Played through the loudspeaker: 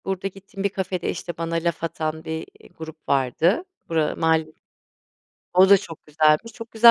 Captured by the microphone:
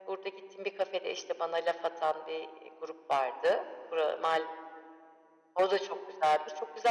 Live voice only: none

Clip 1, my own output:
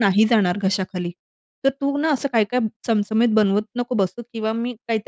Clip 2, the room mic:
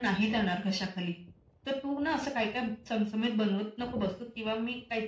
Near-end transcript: none

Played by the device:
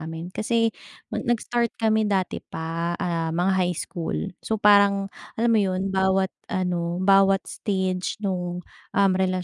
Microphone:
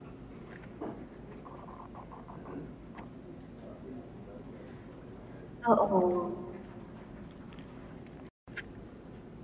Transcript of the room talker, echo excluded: Oo.

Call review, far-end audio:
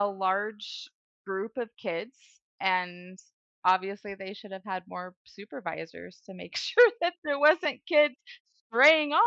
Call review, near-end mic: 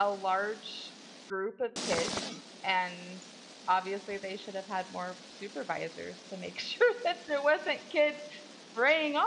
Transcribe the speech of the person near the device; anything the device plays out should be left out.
none

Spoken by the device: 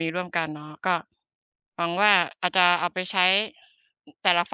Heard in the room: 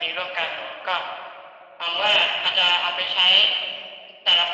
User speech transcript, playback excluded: none

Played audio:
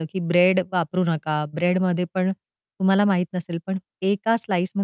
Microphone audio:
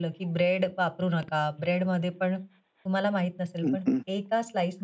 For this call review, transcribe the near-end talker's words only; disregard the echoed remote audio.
हं, हं.

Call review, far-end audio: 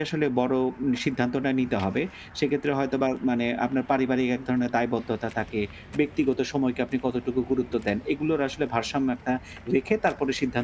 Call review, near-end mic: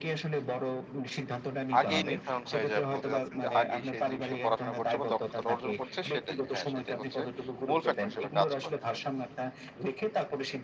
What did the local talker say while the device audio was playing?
আগেই নির্ধারণ হয়ে যায় বলতে চাচ্ছেন যে আগেই সে যে বিষয়ে পড়াশোনা করছে বা দক্ষতাটা অর্জন করছে সেটাই। হ্যাঁ, সেটাই হচ্ছে মূল ফ্যাক্টর হিসেবে কাজ করে।

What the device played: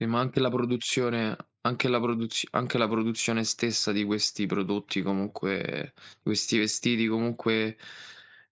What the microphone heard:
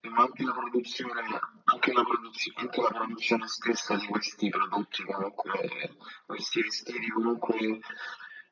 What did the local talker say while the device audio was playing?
none

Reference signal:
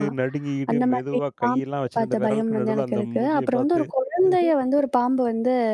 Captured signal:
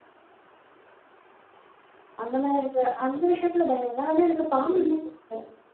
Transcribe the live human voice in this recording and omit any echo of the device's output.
அந்த மாரி எனக்கு அந்த விஷயத்துல பயம் இல்ல. ஆனா, எனக்குப் பாம்புன்னா கொஞ்சம் பயம்.

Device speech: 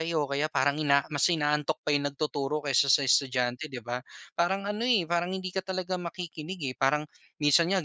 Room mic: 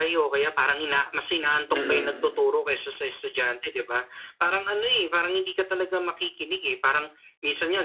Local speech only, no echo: Mm.

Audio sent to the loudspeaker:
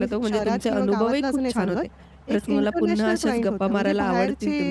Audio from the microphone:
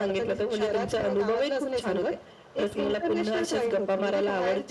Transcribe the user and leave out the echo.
none

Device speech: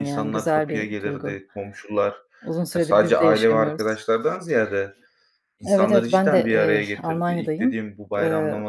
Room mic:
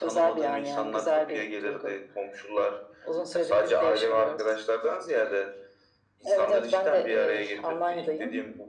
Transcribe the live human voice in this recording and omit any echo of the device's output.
none

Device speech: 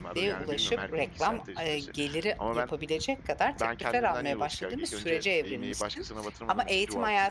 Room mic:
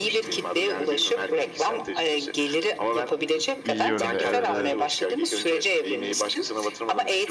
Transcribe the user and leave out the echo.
İyi yönde Evet, evet.

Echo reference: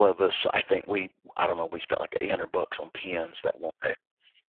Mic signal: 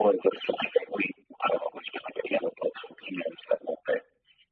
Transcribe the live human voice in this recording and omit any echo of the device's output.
none

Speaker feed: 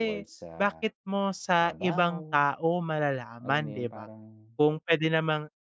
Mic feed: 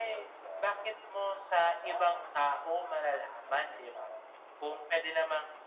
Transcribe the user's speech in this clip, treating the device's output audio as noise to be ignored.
none

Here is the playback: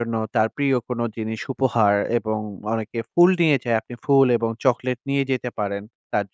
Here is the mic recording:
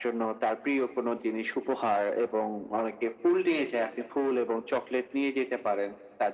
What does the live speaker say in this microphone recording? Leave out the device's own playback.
none

